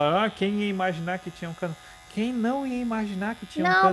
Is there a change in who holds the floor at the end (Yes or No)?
Yes